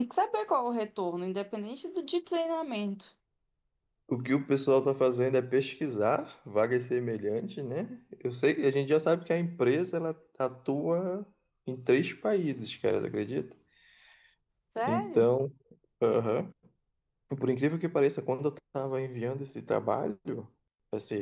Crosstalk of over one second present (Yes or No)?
No